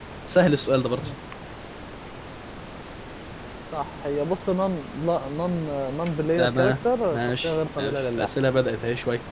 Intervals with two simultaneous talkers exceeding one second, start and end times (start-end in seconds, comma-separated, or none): 6.4-8.3